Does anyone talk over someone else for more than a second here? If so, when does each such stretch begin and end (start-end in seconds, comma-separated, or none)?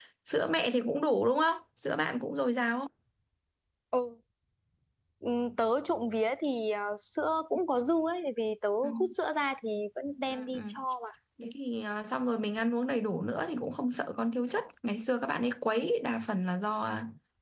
none